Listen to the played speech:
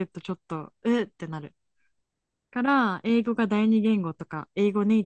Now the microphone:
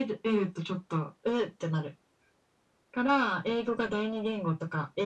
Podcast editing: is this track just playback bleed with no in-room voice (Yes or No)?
Yes